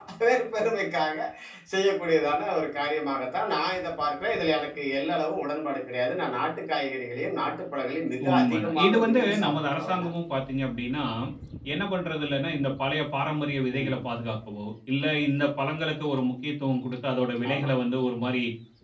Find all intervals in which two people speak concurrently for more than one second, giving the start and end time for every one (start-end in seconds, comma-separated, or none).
8.3-10.1